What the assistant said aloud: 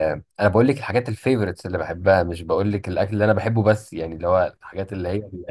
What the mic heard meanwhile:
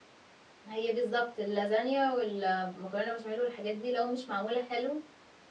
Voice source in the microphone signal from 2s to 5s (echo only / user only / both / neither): user only